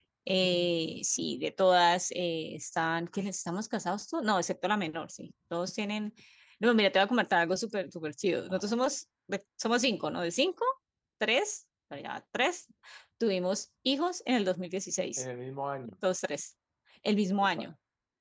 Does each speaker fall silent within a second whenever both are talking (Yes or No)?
Yes